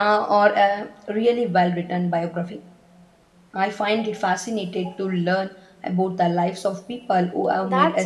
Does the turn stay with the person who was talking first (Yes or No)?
No